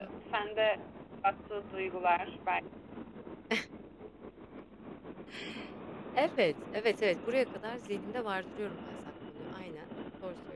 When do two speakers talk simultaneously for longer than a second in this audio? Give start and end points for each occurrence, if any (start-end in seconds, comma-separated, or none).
none